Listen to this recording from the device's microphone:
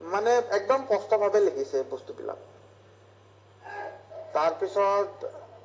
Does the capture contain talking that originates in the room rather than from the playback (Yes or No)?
No